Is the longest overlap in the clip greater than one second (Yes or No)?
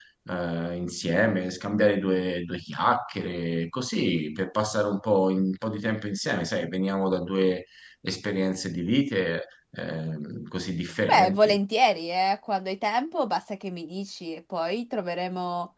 No